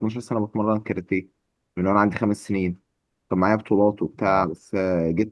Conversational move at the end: listening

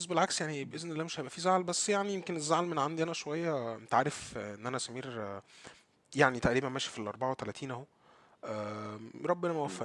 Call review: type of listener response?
listening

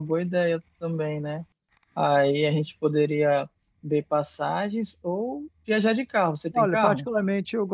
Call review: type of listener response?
taking over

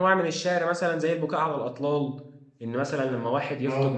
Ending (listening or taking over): listening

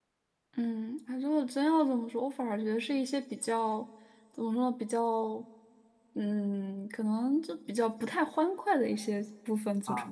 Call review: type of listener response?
taking over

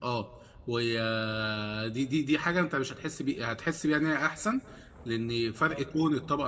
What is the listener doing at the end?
listening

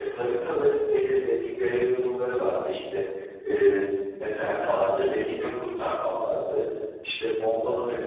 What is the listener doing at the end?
listening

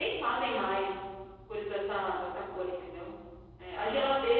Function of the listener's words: listening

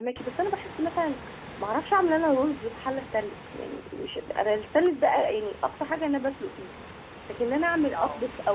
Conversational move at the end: listening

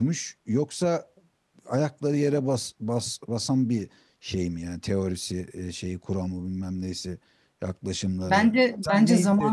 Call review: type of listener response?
taking over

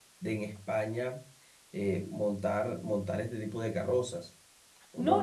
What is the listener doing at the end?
taking over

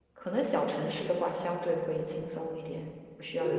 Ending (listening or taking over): taking over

